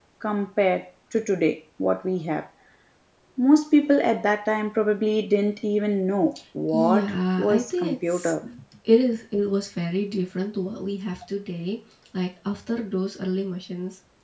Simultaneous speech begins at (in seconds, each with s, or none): 6.7 s